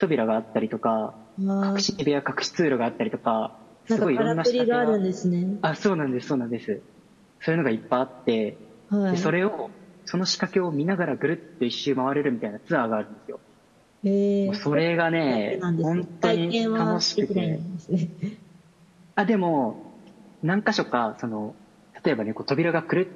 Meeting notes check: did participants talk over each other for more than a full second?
Yes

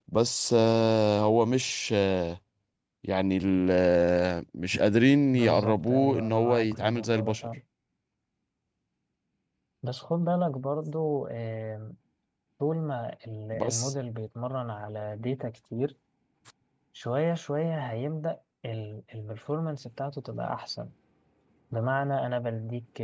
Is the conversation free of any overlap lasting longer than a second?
No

